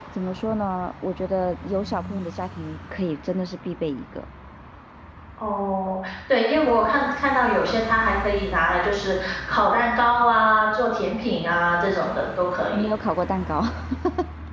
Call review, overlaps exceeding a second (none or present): none